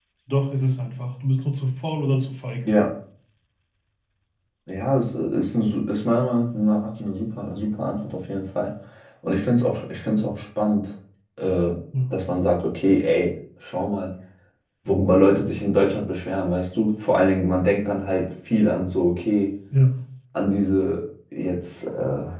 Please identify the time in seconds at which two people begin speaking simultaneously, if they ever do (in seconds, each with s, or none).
none